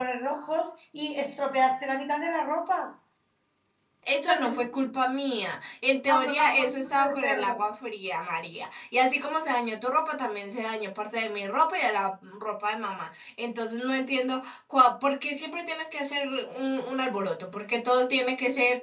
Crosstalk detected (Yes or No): Yes